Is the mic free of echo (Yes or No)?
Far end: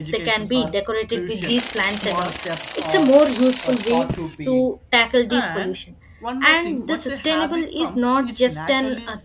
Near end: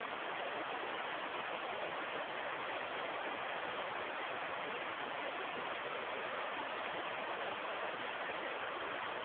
Yes